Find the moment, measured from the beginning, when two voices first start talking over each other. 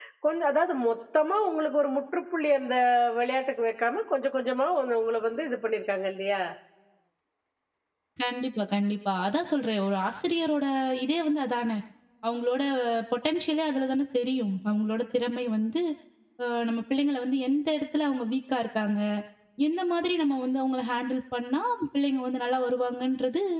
none

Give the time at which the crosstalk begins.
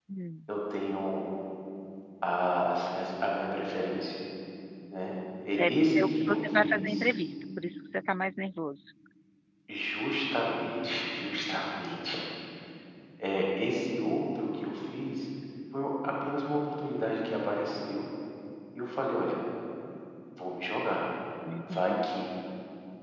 5.6 s

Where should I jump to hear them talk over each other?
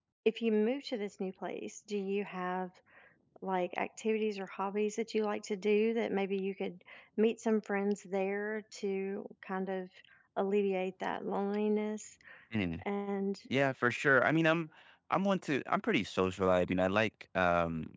none

